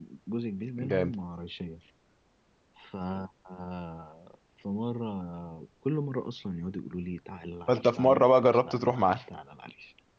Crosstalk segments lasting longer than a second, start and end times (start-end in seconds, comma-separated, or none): 7.7-9.2